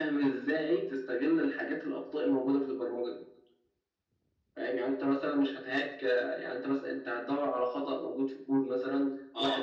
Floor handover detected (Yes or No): No